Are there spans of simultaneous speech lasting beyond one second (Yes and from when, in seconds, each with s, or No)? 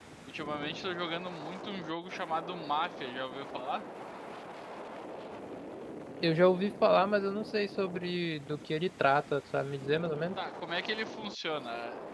No